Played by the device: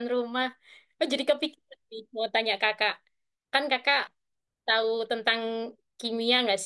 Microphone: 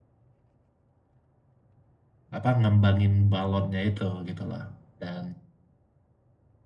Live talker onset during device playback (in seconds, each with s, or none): 2.4 s